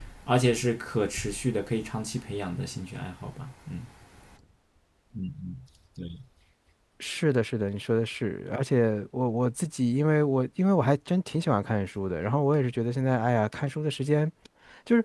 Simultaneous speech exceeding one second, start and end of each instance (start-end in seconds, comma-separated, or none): none